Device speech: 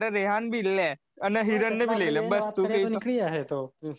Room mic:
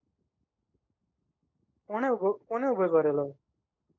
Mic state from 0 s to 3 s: user only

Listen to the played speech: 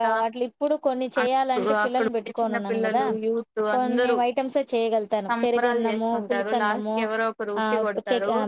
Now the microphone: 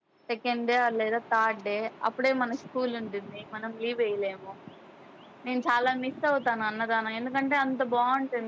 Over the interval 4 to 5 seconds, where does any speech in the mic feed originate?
user only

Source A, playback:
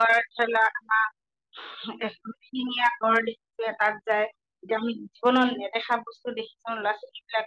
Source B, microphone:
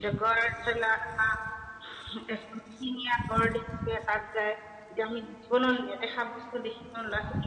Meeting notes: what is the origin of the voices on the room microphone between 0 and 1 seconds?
echo only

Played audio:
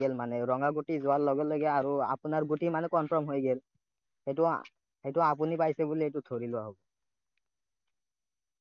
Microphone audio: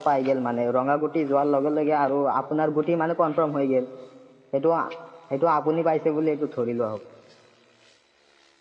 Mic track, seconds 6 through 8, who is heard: echo only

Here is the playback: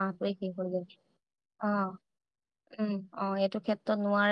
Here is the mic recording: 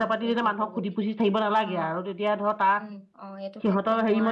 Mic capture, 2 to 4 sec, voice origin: both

